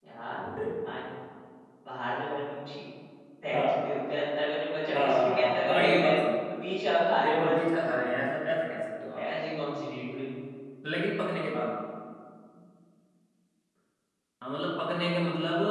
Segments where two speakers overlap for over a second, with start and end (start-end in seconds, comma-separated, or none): 4.9-6.2